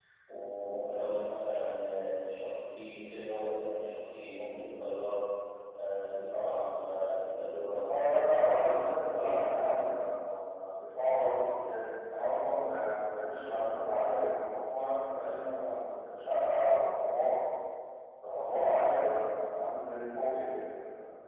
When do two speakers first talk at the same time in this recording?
8 s

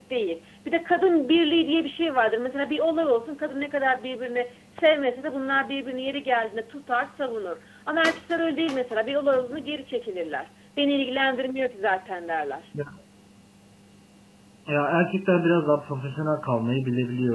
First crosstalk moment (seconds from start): none

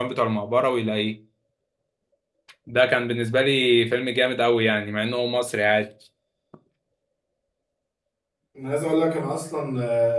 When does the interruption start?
none

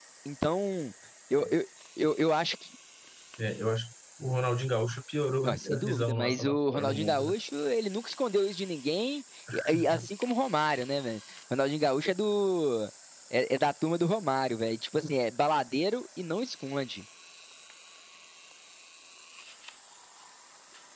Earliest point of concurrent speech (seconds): 5 s

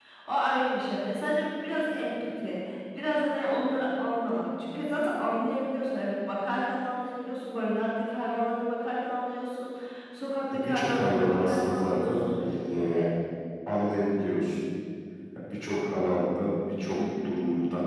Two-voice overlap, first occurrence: 11 s

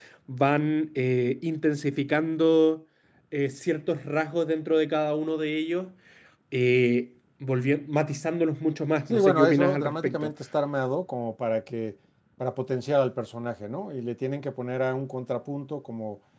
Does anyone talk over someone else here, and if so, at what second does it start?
9 s

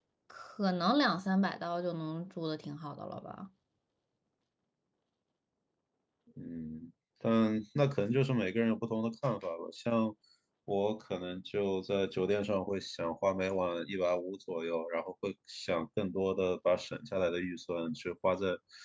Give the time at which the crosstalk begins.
none

